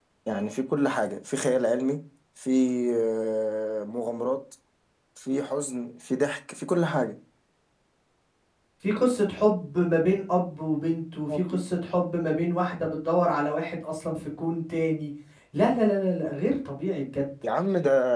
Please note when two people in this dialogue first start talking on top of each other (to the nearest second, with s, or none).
none